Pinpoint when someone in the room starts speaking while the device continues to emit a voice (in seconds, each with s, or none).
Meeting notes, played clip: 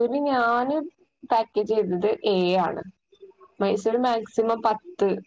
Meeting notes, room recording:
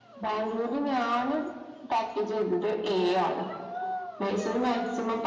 none